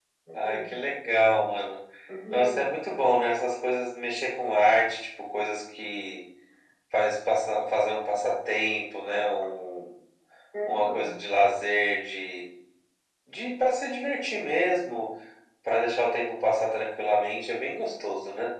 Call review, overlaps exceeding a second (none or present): none